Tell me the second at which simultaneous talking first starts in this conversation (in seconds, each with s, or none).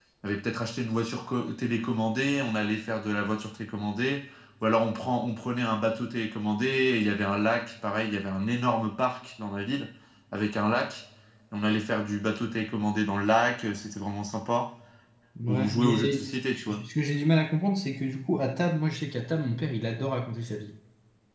15.5 s